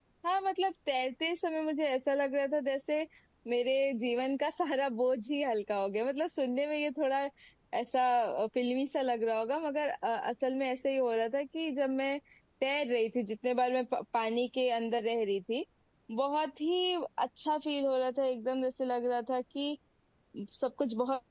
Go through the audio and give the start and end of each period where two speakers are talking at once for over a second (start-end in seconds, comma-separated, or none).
none